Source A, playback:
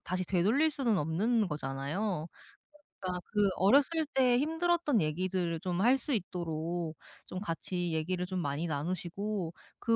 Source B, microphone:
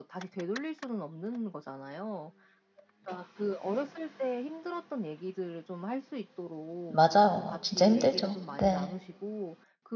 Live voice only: 맞아요. 진짜 힘들죠. 네.

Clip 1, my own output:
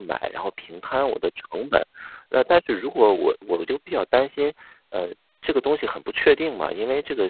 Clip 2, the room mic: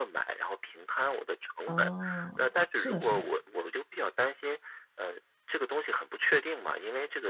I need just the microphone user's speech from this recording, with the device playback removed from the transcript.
嗯，是的是的。

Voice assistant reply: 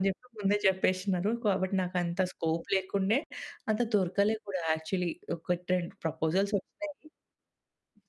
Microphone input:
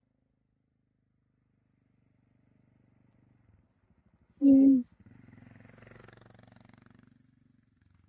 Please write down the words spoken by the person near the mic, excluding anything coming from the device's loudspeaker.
హ్మ్.

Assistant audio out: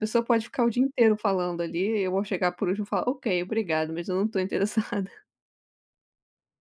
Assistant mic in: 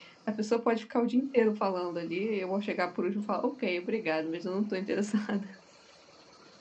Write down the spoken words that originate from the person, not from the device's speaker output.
none

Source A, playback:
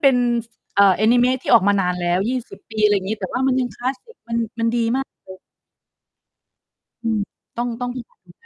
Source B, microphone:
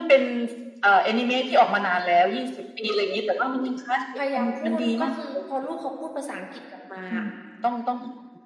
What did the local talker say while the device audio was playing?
พยายามพูด ก็คือพอลูกเขาพูดภาษาอังกฤษกลับมาอะ

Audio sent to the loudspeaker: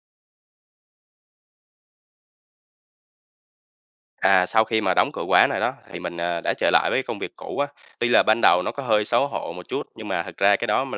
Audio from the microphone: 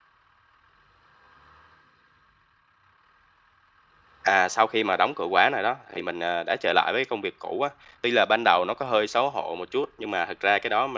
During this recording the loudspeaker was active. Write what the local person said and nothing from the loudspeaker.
none

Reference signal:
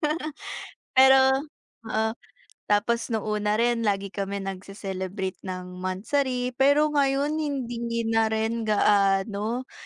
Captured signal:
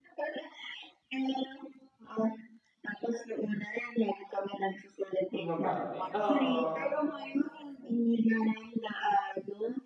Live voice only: Bumabawi, oo.

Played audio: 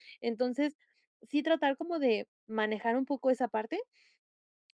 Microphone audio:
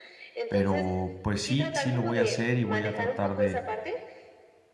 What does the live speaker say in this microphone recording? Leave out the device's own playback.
pero pues sí, sí, lo voy a hacer, y voy a tratar de

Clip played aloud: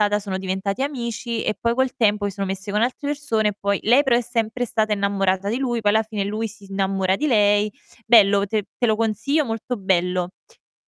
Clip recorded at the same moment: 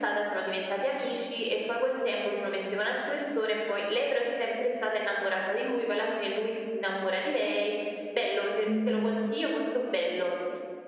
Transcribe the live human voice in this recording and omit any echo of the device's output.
mhmm,

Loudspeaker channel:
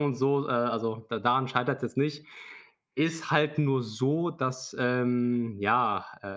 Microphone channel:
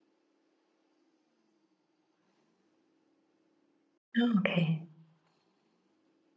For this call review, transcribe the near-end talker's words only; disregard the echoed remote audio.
Ah. Okay.

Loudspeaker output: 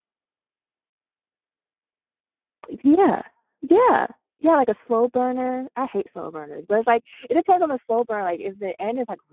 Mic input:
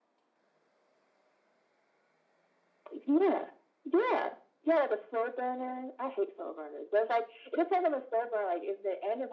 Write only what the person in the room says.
none

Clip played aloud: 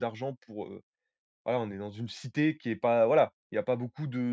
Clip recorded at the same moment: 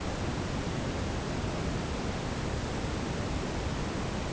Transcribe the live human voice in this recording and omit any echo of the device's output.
none

